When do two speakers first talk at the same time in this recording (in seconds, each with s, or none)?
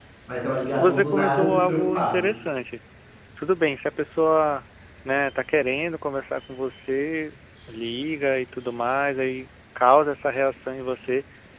0.8 s